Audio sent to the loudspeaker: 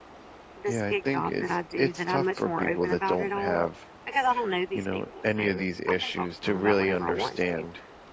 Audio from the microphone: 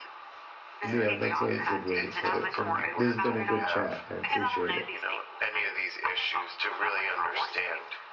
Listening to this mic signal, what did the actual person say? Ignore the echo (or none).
Yeah, that's a good way to put it, and this has been a good chat. I appreciate it.